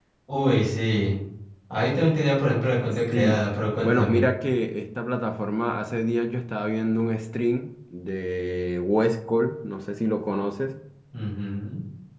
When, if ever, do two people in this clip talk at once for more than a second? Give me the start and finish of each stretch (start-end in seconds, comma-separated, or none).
none